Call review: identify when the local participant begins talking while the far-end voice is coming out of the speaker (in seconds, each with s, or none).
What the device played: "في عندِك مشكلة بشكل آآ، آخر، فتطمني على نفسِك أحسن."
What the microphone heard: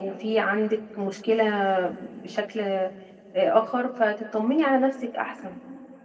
none